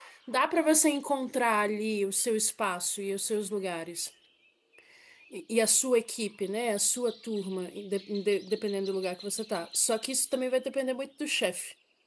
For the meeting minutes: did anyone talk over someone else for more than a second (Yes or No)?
No